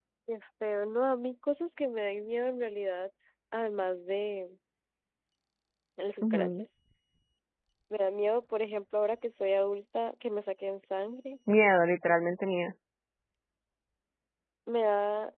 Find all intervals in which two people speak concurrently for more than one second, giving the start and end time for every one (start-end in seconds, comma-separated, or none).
none